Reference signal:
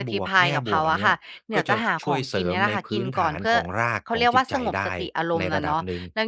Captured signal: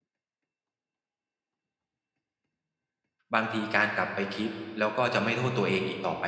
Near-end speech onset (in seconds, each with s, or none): 3.3 s